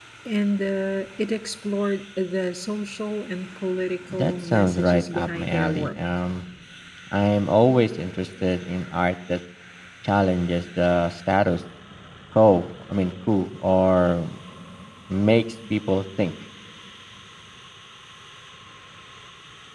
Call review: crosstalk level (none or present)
present